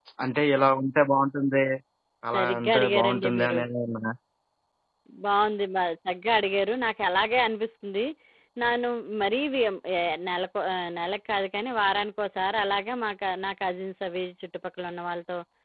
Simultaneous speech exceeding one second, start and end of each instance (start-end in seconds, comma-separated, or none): 2.3-3.6